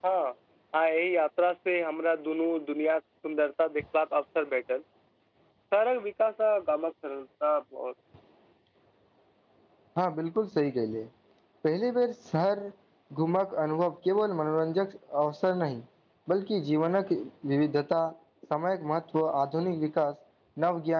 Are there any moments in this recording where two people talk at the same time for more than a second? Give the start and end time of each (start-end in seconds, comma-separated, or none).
none